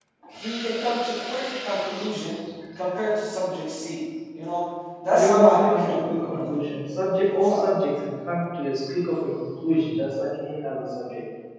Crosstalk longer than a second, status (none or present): present